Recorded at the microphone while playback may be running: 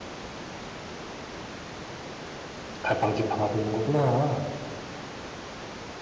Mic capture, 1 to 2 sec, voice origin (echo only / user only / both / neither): neither